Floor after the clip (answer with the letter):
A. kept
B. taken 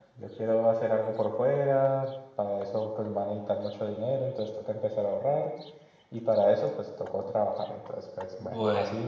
A